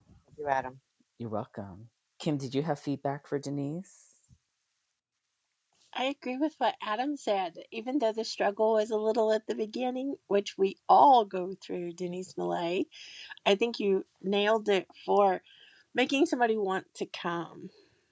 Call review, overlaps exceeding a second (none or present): none